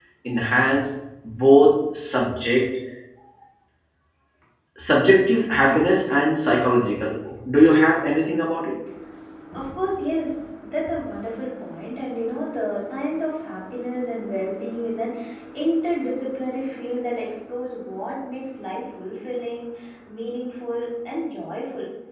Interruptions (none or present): none